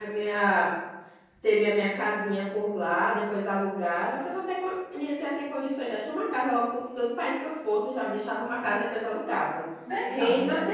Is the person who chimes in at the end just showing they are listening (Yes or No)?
No